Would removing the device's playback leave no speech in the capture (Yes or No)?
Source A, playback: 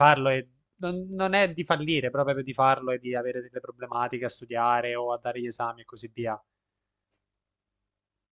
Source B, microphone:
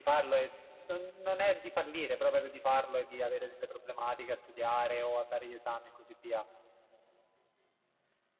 Yes